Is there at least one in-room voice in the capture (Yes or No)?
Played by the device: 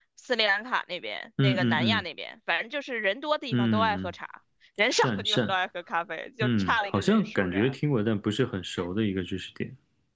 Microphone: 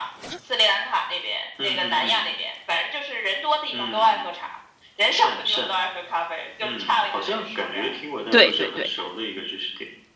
Yes